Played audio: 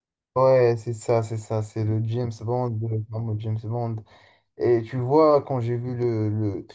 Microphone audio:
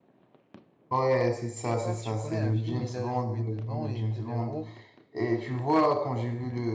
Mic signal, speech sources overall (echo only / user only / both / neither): both